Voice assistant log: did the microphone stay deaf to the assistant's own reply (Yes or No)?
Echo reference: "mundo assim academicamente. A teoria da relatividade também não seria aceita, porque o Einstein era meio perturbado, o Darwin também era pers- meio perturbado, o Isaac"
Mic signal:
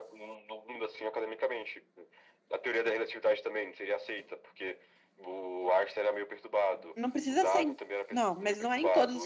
No